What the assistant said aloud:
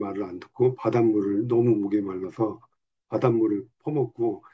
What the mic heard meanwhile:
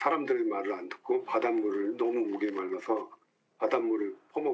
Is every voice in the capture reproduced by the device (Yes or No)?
Yes